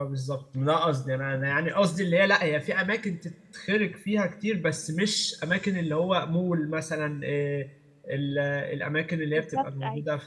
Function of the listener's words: listening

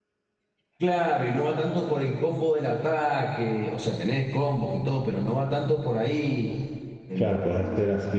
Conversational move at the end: taking over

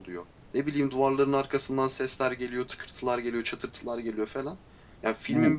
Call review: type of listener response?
listening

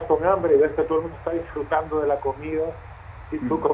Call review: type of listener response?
listening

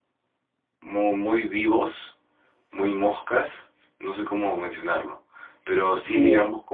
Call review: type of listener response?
listening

